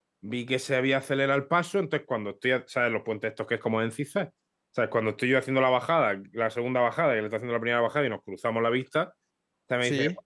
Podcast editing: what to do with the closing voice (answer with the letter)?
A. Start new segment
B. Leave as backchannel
B